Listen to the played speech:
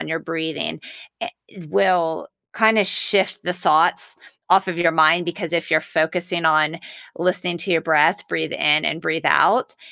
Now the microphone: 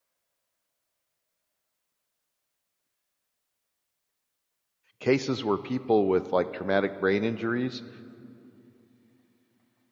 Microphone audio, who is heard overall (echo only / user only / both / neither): user only